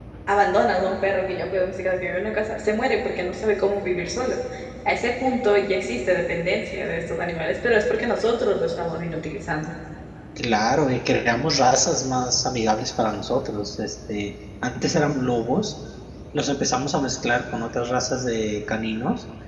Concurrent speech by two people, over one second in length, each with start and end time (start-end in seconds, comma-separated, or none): none